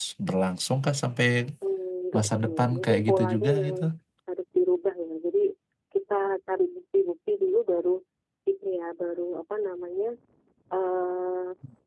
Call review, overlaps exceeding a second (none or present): present